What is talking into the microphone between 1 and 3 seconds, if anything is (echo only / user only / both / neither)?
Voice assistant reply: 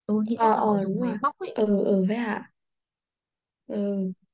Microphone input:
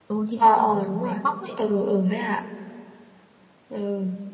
echo only